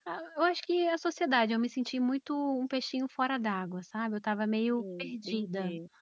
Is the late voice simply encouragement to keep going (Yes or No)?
No